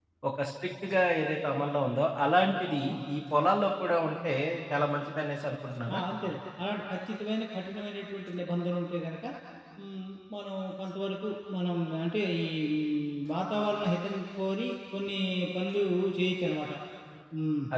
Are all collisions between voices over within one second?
Yes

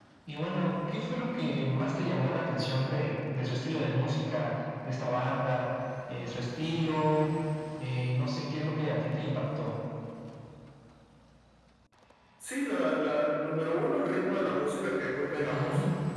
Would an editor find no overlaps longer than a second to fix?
Yes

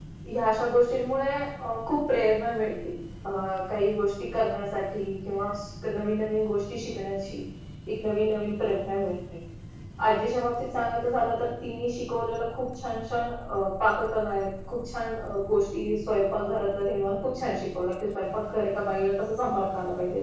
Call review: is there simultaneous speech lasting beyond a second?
No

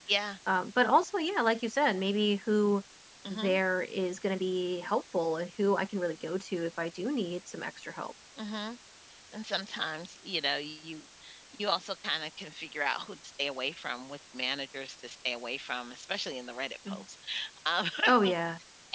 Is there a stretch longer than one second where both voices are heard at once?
No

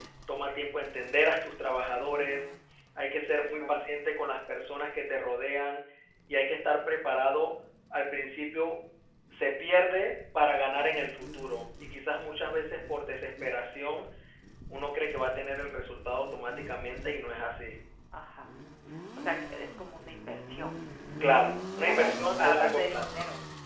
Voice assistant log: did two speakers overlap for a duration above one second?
Yes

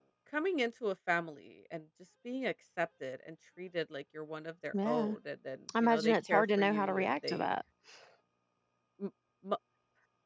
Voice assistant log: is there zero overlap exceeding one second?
No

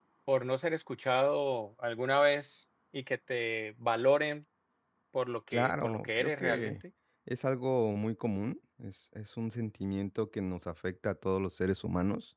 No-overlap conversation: No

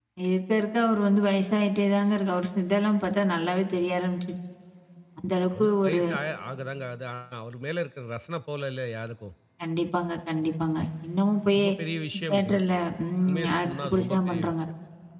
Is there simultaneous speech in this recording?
Yes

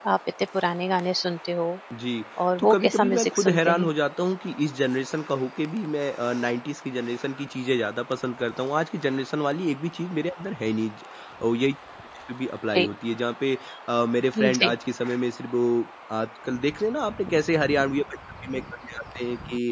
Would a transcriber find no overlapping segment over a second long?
No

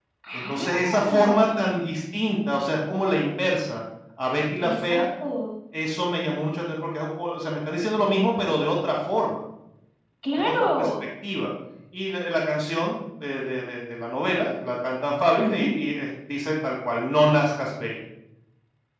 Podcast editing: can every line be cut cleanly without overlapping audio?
No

